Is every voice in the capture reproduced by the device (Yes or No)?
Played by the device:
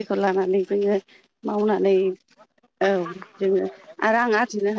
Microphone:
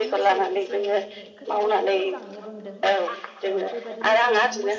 No